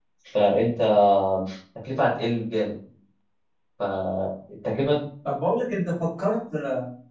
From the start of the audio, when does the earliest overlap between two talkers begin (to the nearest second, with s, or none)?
none